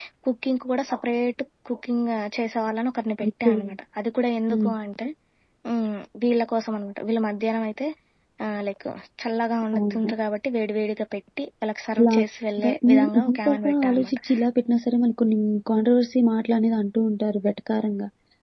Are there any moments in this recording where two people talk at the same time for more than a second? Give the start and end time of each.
12.9-14.2

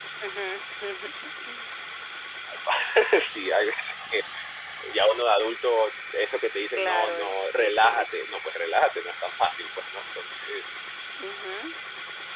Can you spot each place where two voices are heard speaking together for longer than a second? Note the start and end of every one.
6.8-8.1

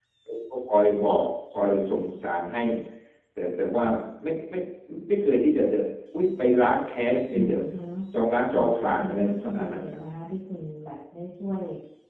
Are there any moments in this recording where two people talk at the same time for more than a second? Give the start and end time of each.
8.5-10.0

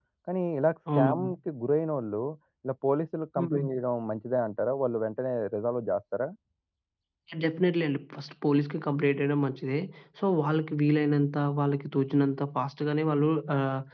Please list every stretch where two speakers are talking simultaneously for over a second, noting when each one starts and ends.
none

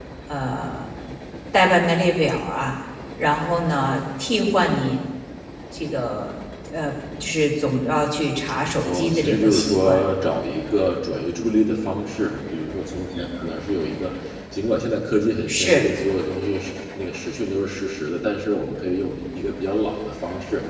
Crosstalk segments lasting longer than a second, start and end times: 8.8-10.0

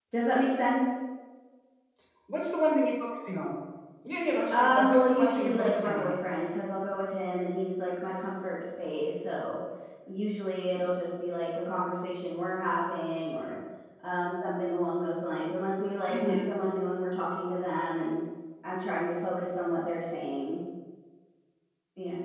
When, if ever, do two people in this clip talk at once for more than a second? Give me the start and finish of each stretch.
4.5-6.2

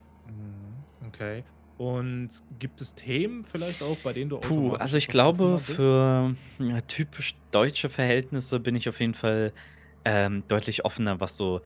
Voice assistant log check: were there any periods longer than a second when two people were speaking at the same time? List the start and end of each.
4.4-5.9

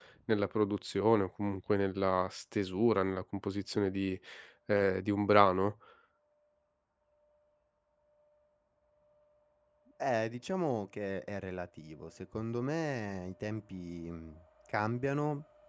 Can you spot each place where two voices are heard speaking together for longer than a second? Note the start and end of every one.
none

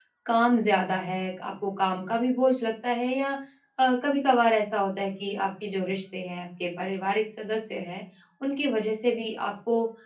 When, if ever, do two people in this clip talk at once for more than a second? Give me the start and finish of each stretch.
none

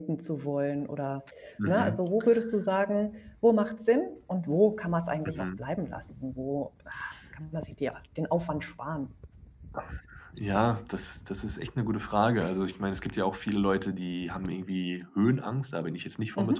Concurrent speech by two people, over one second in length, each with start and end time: none

